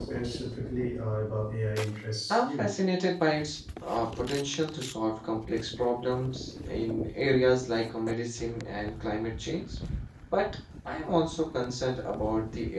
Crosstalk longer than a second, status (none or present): none